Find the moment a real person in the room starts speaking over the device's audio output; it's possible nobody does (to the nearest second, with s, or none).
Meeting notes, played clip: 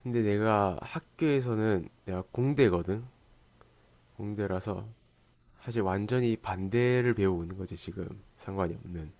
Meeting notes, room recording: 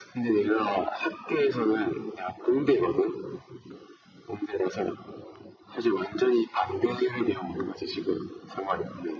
none